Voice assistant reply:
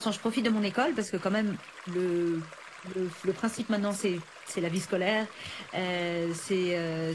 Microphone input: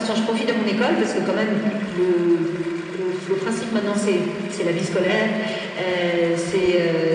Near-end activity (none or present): none